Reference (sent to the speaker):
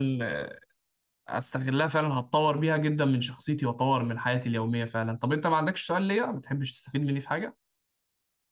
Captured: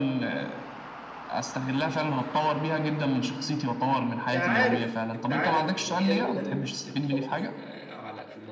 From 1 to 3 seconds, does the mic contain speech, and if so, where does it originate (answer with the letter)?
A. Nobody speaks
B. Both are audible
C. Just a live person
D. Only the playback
D